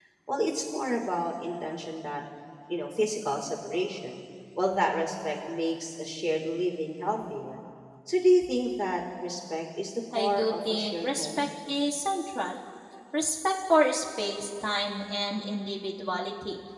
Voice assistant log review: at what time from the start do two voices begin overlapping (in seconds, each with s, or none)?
10.1 s